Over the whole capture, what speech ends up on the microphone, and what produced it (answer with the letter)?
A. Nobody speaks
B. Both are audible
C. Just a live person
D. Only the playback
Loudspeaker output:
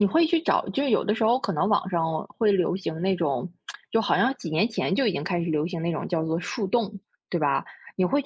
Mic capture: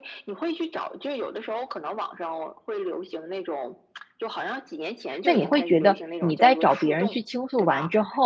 B